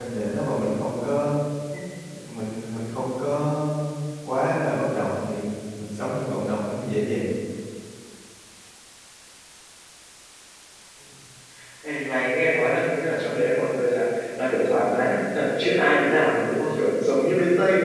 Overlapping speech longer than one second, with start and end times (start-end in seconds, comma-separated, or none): none